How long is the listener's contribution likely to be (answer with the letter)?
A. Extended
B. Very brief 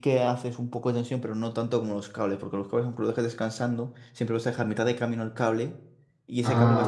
A